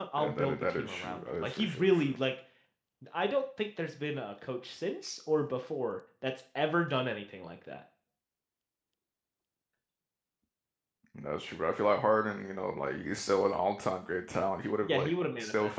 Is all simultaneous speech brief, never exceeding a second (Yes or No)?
No